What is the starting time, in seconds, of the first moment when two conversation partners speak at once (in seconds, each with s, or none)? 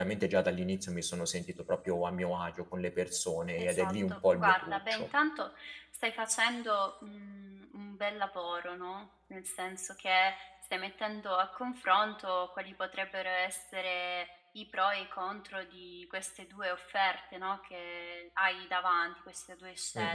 3.6 s